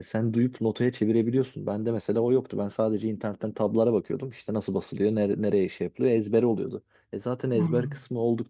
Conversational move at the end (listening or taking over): listening